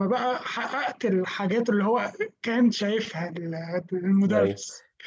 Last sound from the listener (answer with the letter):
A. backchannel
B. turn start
B